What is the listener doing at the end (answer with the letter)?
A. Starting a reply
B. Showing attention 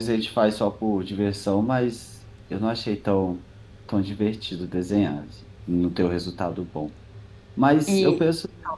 B